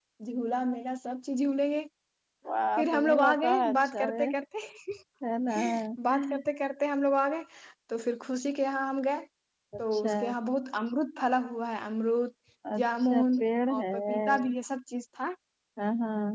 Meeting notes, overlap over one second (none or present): present